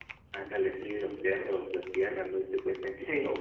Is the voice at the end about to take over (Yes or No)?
No